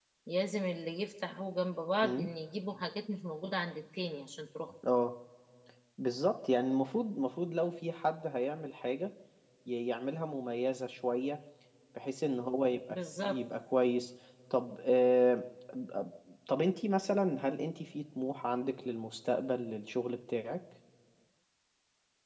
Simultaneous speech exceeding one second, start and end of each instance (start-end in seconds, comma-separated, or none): none